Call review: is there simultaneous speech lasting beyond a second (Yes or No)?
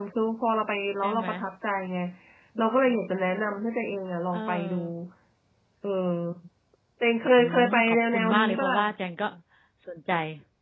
Yes